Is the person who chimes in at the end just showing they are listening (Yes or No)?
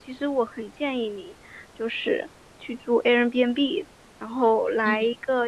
Yes